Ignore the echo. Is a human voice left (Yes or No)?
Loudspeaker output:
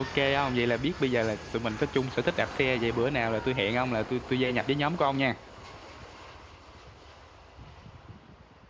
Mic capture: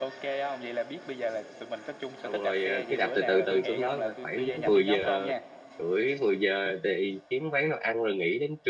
Yes